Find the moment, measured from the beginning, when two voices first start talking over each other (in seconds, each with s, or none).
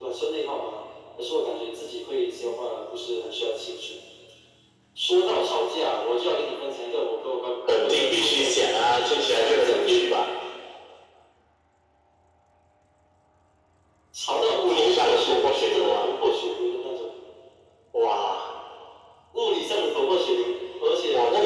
7.8 s